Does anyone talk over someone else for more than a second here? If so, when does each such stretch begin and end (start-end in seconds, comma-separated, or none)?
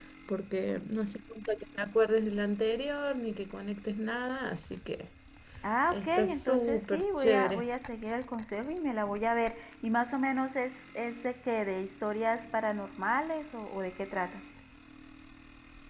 5.9-7.6